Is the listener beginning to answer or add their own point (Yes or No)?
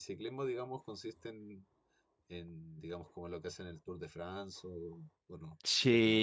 Yes